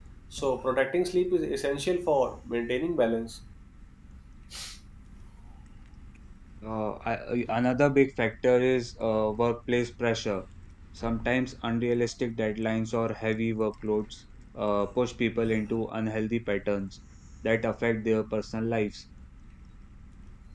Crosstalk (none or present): none